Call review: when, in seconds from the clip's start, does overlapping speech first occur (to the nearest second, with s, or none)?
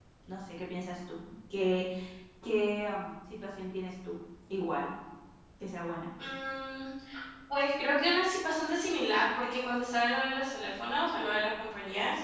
none